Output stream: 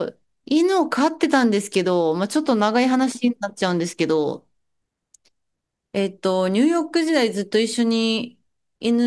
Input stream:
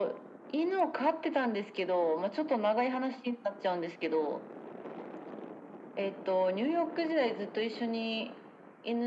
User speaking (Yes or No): No